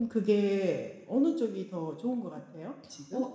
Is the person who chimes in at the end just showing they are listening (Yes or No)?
No